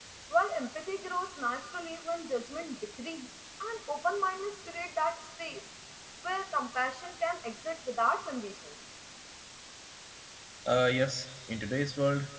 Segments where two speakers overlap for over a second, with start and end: none

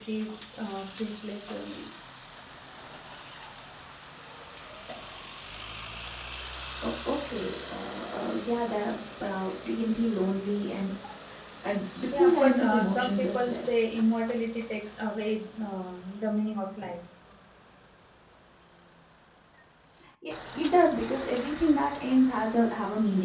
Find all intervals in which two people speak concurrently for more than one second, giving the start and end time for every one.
12.1-13.6

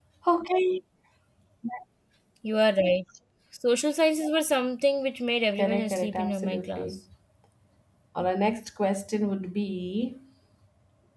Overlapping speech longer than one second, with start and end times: 5.6-7.0

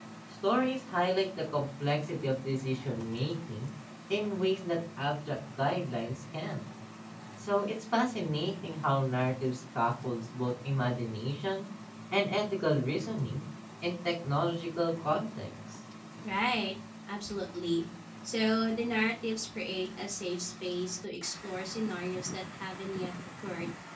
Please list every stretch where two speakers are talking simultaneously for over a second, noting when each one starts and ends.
none

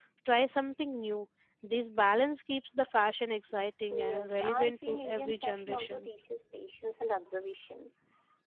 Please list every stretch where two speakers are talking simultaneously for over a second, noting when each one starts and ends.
3.9-6.1

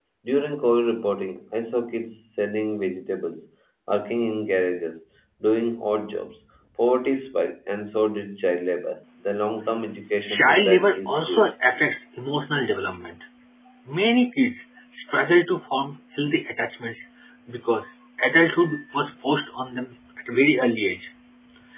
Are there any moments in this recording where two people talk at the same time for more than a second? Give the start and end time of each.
10.3-11.5

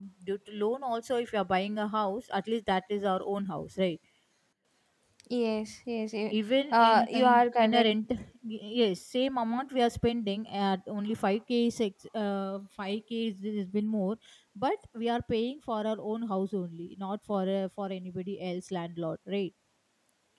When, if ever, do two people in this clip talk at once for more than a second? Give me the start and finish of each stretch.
6.7-7.9

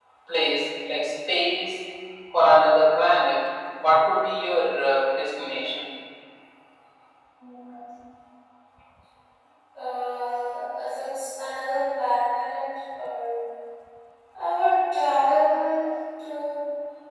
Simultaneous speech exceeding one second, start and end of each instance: none

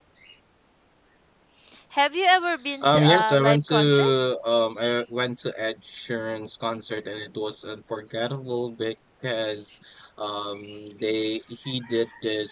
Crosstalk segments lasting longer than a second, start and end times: 2.8-4.1

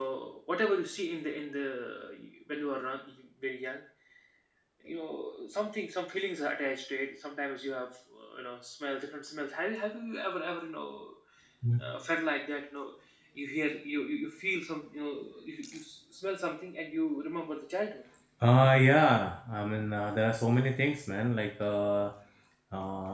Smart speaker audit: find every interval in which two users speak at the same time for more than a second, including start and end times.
none

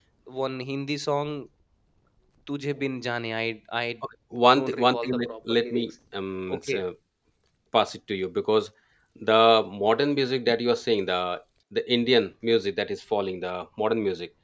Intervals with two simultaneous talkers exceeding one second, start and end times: 4.6-5.9

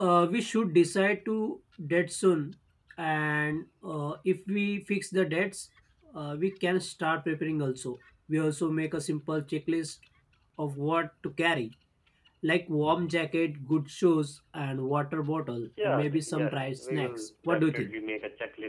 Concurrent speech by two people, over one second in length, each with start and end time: 15.8-17.9

